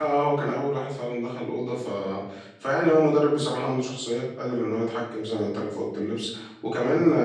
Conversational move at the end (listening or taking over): listening